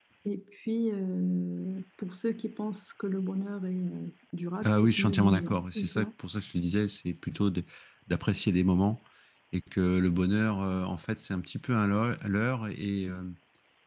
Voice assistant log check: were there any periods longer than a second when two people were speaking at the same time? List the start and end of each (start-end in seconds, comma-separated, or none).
4.6-6.1